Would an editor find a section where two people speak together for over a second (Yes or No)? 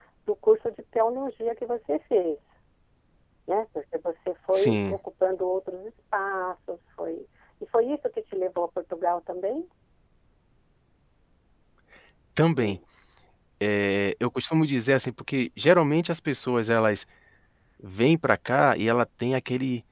No